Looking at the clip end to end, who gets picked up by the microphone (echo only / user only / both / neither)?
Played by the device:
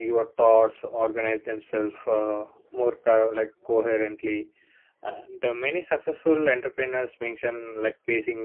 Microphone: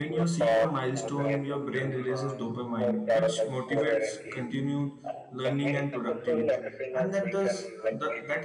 both